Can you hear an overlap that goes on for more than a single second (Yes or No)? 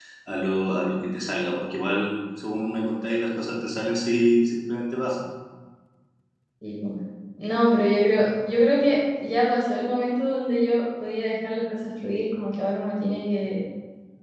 No